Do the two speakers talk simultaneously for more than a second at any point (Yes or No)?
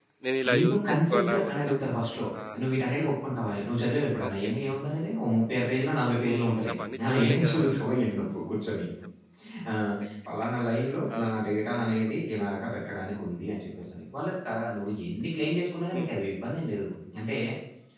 Yes